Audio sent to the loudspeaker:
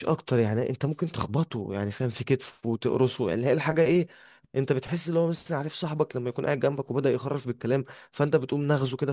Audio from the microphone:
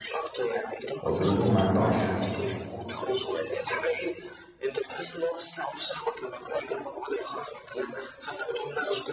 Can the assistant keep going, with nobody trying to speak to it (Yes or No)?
No